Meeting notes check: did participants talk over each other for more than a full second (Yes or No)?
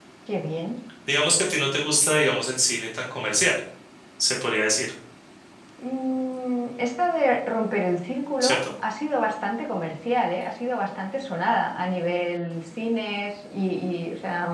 No